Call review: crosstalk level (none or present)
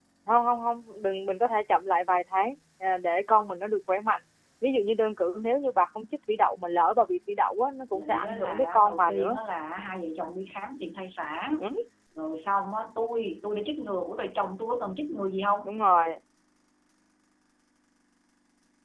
present